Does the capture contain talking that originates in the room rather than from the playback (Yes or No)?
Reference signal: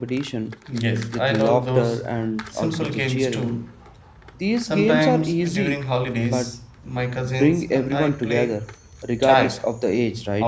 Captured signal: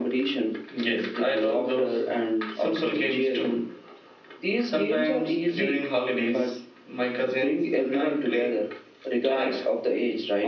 No